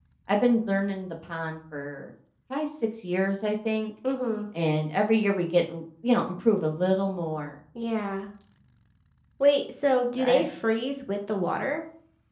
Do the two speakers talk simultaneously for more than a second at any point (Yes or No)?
No